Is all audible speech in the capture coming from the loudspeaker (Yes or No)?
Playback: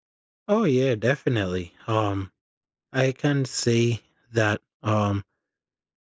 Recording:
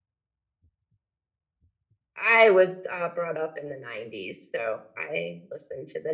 No